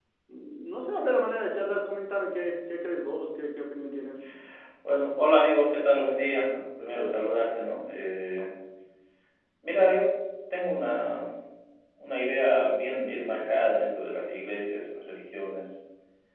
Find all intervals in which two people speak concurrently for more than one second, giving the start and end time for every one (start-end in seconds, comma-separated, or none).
none